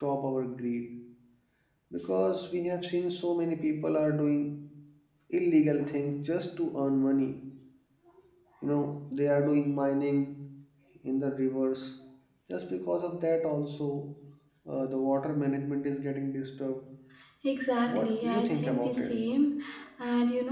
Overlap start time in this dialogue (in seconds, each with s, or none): 17.9 s